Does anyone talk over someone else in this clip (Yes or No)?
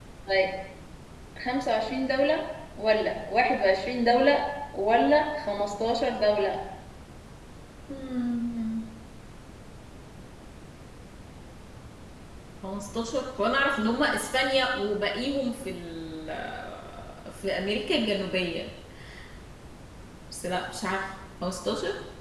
No